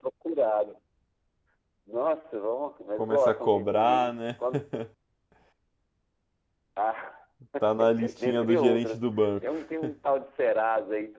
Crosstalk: present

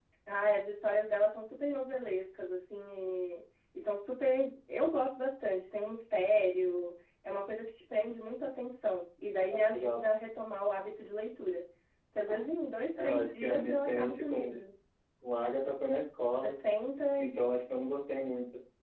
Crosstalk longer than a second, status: present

